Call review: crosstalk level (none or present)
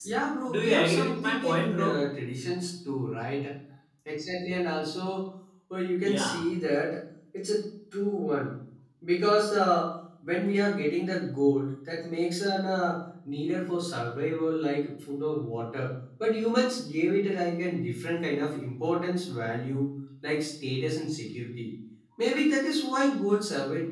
present